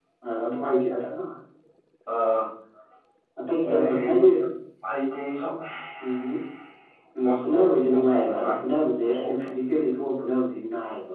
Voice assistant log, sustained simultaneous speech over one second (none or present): present